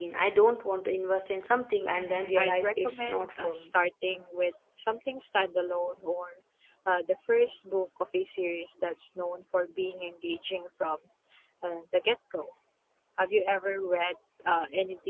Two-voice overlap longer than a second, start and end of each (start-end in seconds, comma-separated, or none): 1.9-3.7